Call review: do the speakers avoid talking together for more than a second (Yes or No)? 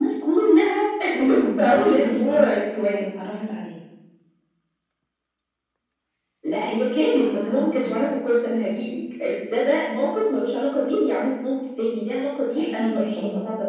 No